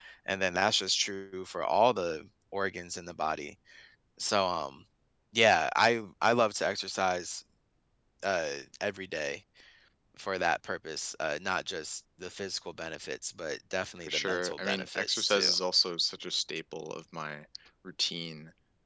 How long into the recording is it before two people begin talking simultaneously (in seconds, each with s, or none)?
14.1 s